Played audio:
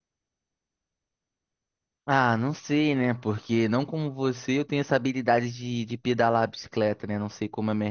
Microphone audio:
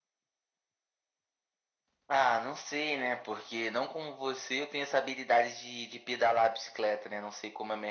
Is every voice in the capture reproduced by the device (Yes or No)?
Yes